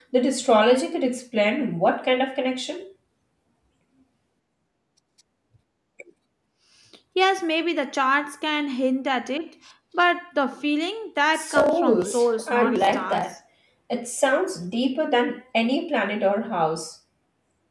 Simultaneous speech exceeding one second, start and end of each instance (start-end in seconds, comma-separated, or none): 11.3-13.3